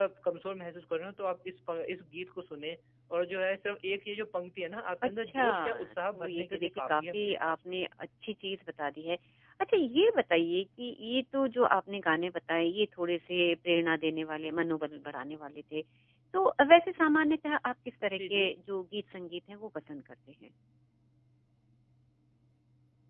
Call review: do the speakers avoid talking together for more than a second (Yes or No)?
No